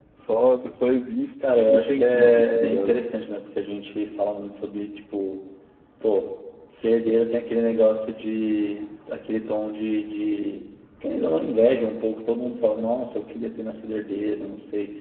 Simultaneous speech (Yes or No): Yes